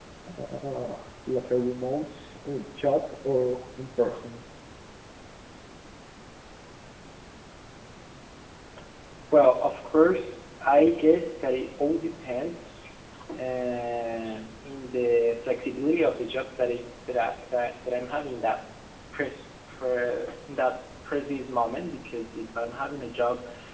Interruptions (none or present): none